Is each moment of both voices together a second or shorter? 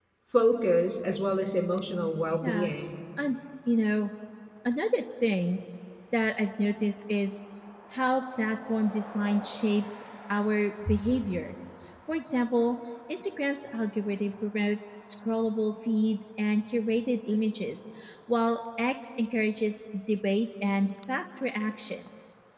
Yes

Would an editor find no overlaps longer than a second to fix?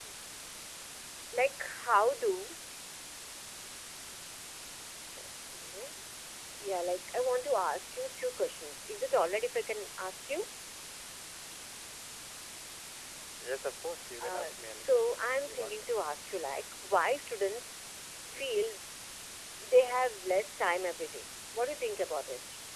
No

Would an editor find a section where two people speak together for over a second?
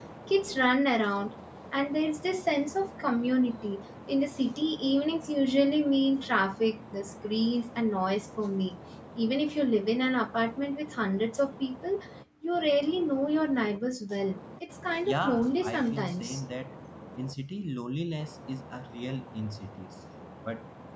Yes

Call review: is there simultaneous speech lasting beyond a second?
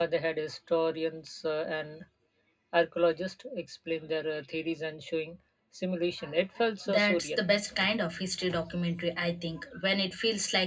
No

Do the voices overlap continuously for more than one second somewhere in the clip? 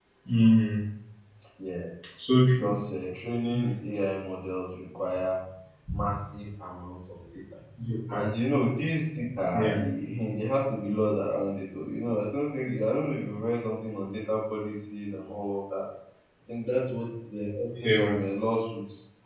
No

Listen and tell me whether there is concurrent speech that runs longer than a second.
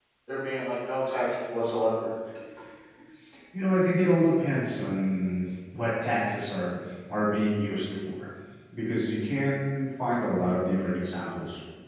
No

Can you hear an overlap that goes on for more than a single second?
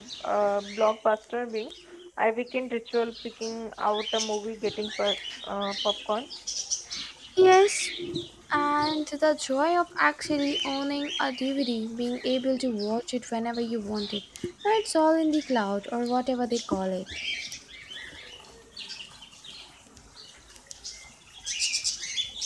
No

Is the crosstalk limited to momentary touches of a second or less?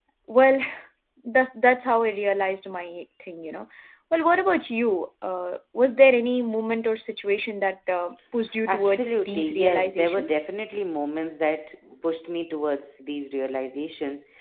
No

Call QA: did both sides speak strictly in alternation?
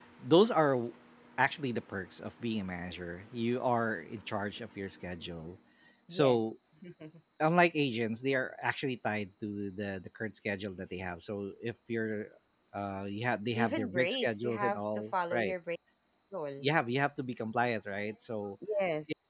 No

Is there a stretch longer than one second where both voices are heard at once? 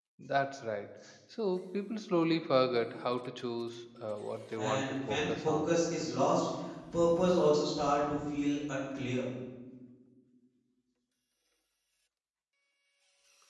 Yes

